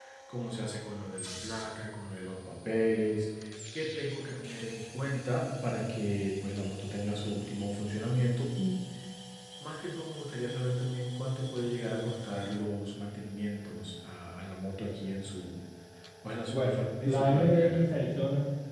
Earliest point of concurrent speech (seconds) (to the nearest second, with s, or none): 16 s